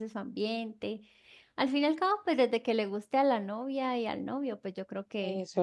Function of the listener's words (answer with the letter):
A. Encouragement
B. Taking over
B